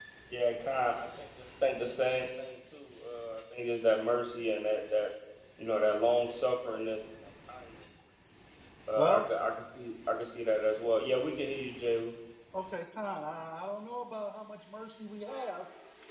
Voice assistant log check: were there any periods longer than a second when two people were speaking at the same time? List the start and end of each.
none

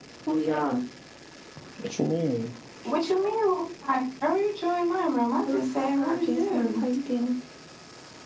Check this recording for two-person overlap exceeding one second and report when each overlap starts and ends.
5.4-6.8

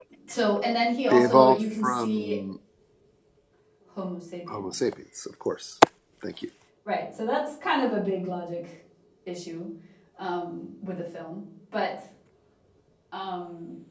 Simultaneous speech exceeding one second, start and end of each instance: 1.1-2.4

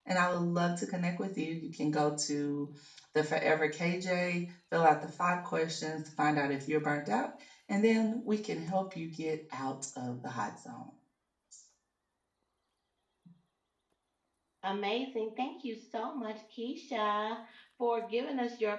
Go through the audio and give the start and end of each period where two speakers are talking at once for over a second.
none

